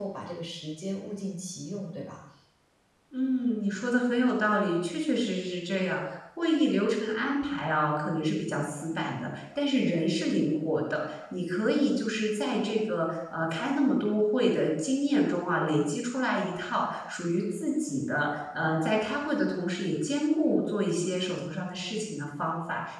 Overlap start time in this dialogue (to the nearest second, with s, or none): none